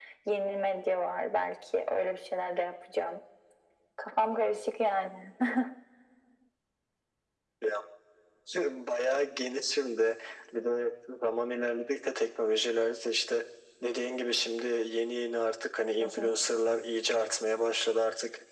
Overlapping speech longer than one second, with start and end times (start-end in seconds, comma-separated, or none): none